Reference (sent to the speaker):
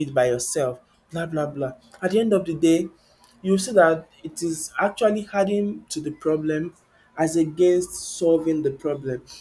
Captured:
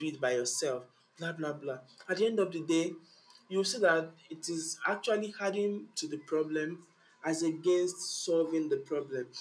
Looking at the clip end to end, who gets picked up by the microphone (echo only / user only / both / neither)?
echo only